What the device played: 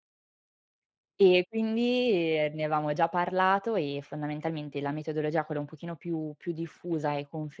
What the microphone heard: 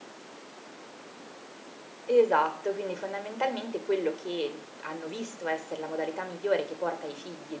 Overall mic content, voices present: user only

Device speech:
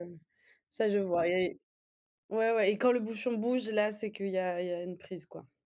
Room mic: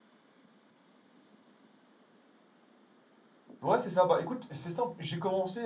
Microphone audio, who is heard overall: user only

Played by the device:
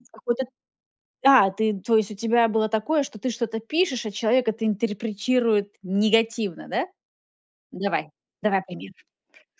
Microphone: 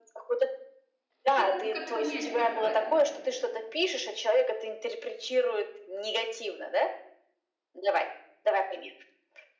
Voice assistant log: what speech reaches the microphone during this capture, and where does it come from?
both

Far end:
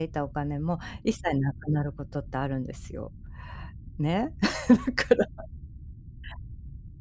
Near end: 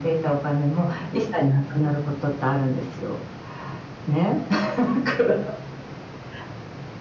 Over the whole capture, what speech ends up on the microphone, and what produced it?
echo only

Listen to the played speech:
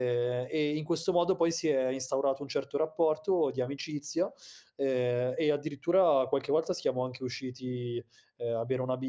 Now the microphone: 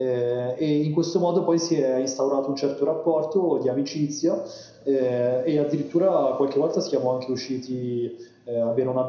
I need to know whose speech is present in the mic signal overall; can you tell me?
echo only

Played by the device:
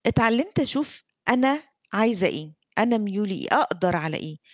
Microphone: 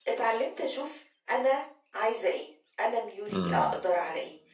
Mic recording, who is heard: both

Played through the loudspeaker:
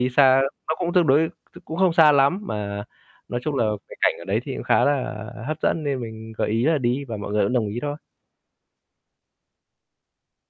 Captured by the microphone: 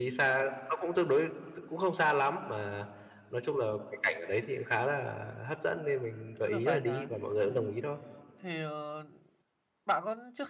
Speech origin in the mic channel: both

